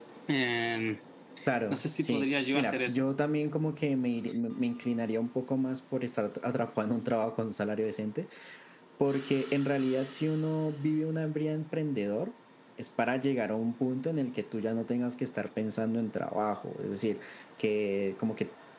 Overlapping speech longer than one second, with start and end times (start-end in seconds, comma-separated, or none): 1.7-3.0